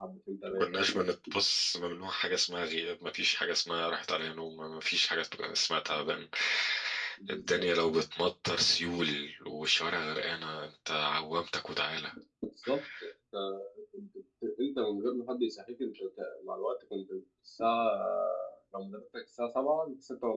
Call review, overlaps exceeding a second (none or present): none